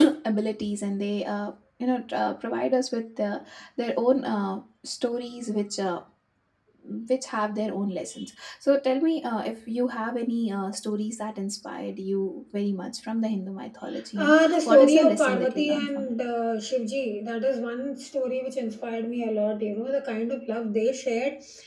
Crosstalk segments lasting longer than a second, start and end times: 14.2-16.1

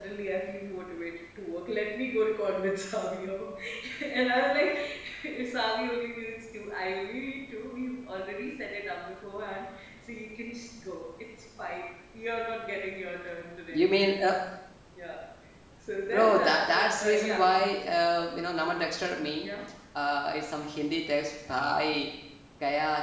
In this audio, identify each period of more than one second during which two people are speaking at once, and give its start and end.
16.1-17.5

